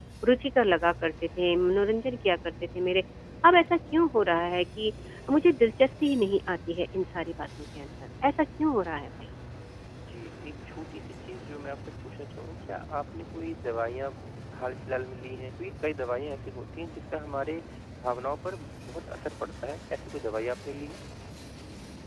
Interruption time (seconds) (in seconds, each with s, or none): none